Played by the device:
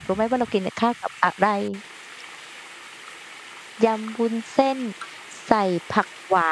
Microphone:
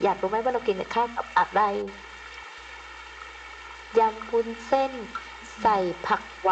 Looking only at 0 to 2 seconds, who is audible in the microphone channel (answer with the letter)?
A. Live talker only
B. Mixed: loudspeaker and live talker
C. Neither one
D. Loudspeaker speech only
D